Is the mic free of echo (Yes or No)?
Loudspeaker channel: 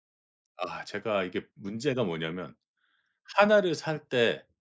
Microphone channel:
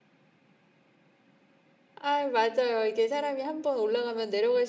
Yes